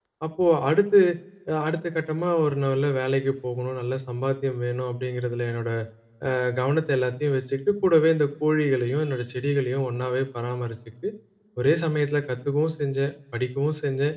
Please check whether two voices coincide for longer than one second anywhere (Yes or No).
No